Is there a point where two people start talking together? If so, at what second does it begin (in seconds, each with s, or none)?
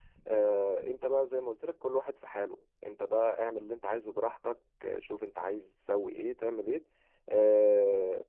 none